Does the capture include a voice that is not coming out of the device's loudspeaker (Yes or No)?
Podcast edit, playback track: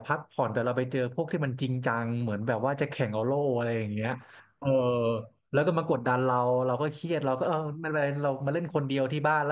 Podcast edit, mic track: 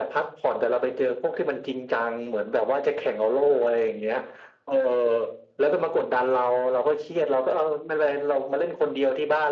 No